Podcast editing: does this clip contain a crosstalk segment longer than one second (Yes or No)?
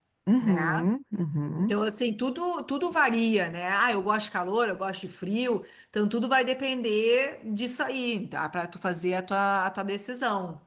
No